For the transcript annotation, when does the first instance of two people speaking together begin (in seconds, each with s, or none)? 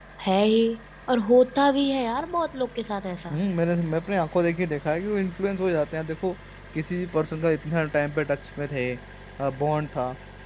none